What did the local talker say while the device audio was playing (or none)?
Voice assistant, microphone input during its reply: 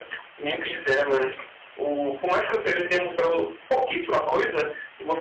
none